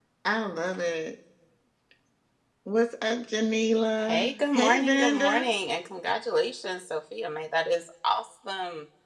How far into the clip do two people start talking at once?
4.0 s

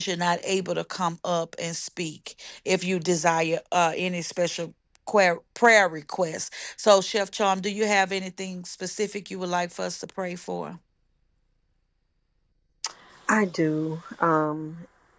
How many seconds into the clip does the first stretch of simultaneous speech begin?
none

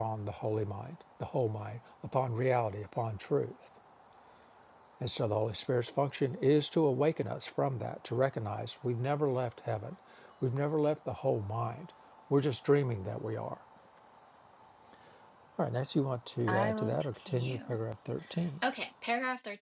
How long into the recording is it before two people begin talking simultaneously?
16.5 s

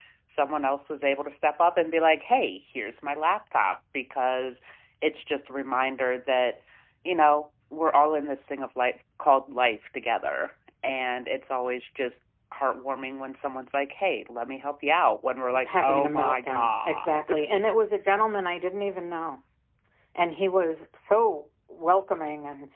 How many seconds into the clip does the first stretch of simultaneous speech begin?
15.5 s

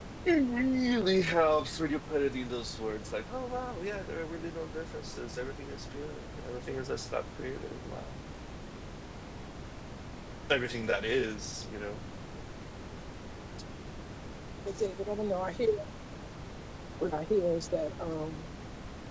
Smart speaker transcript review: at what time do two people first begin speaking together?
none

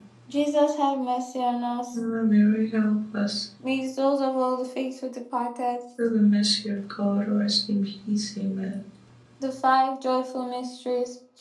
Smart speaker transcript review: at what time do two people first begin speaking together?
none

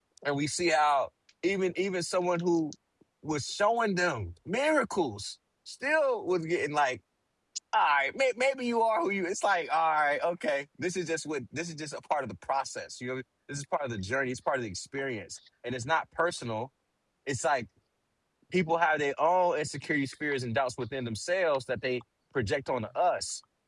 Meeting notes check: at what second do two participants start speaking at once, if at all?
none

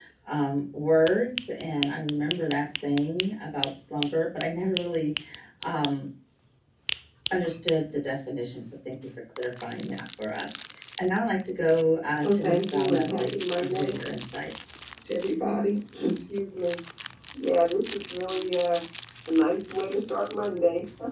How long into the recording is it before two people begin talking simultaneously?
12.2 s

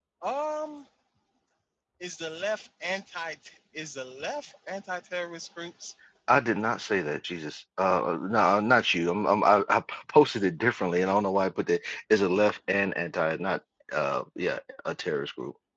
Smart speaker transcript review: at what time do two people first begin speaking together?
none

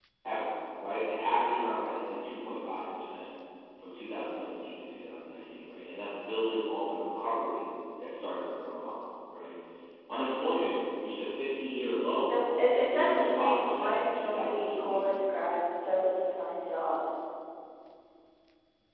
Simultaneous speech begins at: 12.9 s

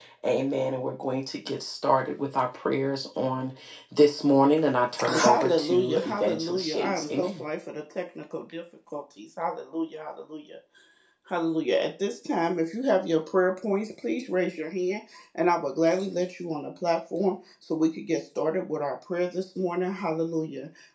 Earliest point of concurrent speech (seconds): 5.0 s

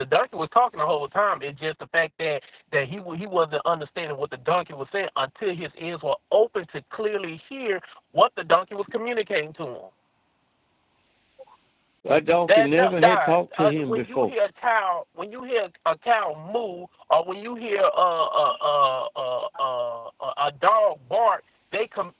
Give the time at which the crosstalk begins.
12.6 s

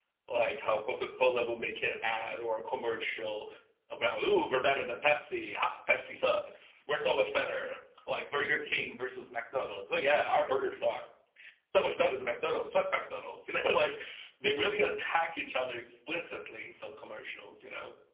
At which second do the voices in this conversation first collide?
none

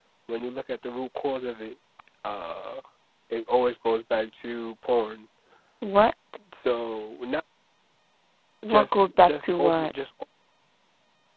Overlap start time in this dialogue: 8.7 s

